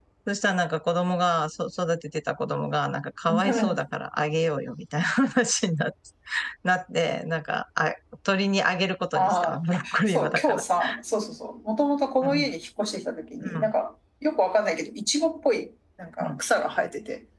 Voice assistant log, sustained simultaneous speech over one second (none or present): present